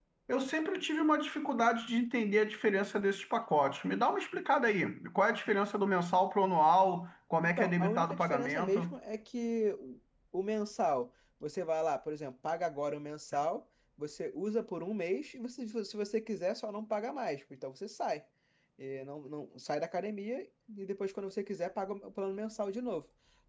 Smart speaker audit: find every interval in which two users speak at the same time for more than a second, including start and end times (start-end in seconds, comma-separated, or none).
7.4-8.9